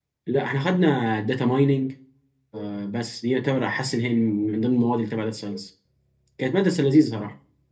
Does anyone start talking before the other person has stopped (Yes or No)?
No